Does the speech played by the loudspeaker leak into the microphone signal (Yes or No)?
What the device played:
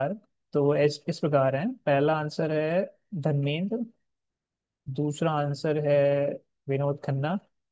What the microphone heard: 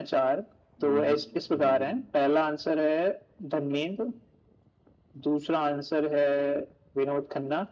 Yes